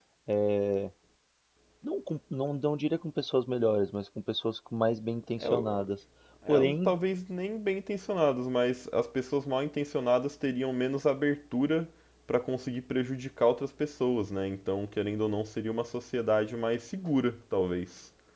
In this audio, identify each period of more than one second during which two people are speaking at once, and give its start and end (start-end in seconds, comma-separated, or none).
none